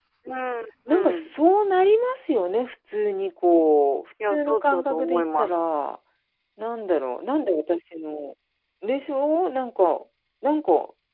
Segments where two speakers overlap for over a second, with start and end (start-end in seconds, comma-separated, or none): 4.3-5.5